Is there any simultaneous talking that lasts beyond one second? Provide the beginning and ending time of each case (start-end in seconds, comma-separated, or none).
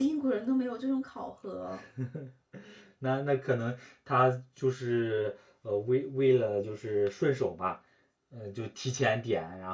none